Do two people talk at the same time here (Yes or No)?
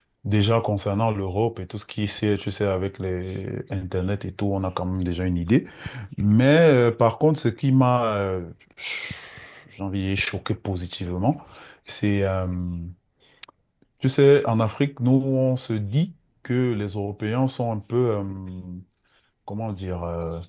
No